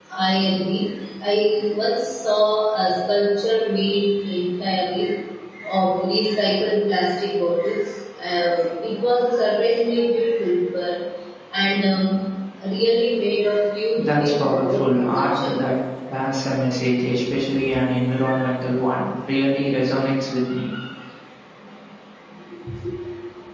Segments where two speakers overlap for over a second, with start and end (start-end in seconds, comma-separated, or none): 14.0-15.5